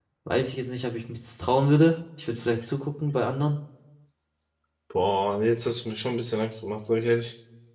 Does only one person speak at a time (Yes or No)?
Yes